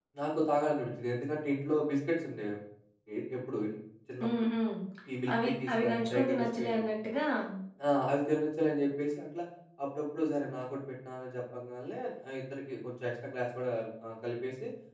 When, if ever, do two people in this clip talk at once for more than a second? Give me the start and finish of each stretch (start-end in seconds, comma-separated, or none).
5.3-6.8